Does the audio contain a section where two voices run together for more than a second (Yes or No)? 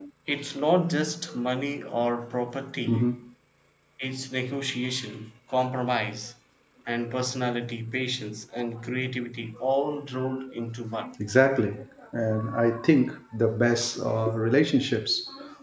No